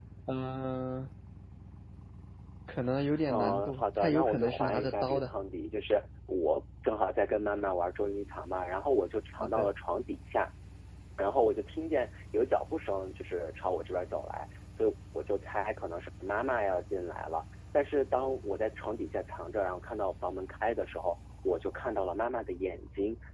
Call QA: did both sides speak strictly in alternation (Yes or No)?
No